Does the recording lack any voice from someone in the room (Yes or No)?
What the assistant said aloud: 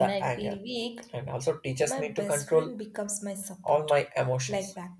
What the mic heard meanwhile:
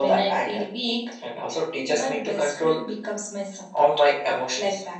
Yes